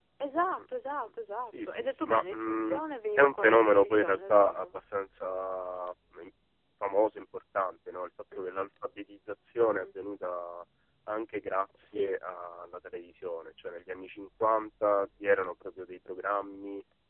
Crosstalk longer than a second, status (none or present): present